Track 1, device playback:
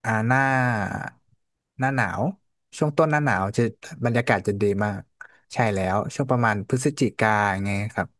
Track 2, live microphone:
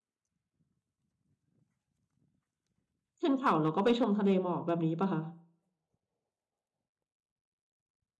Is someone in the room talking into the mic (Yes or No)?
Yes